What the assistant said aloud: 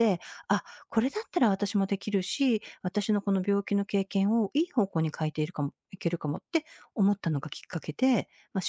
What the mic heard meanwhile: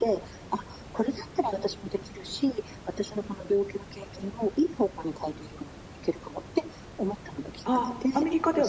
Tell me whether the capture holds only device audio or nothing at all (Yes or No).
No